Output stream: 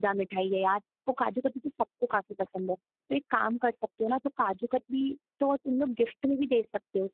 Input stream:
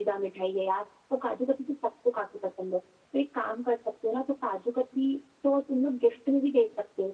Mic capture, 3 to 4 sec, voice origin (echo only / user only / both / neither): echo only